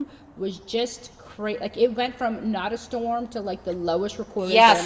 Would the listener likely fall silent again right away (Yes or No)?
No